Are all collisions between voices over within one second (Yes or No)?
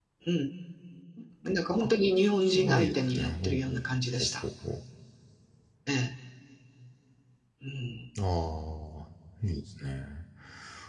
No